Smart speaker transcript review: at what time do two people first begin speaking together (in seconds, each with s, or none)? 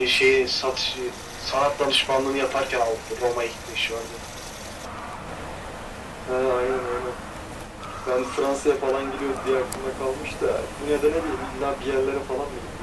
none